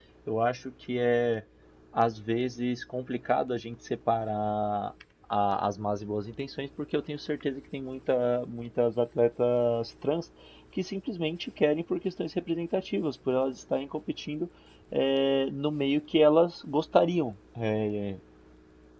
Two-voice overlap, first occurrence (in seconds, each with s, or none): none